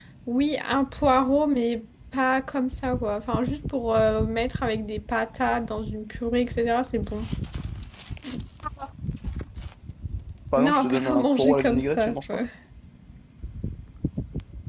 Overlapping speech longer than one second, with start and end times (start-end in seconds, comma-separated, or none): 10.6-12.4